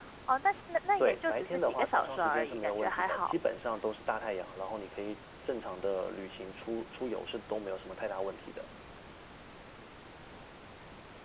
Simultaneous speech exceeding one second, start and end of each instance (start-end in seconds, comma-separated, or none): 1.0-3.3